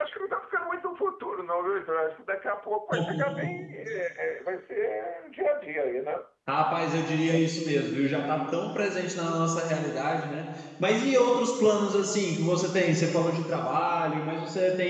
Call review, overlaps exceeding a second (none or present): none